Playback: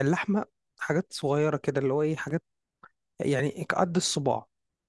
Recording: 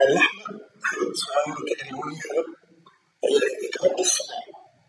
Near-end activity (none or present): none